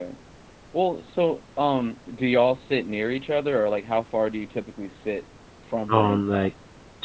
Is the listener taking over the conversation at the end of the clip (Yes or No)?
Yes